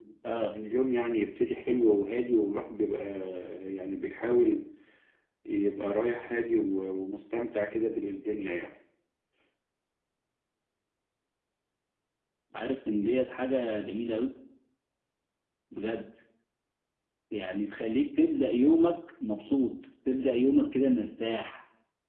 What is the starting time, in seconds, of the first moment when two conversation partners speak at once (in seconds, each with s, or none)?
none